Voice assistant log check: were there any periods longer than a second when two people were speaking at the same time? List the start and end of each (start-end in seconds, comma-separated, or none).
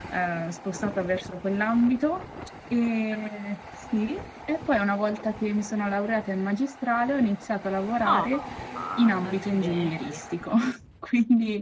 9.0-10.2